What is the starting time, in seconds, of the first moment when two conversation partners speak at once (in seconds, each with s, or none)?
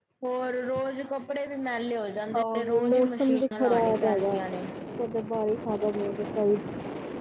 2.3 s